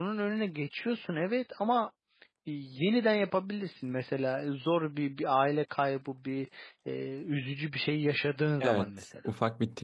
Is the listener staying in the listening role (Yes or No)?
No